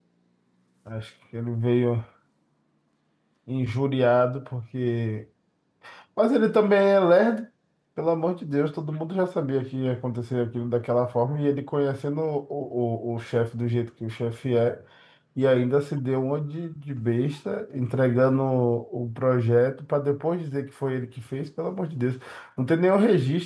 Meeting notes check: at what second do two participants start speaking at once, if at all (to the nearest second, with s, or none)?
none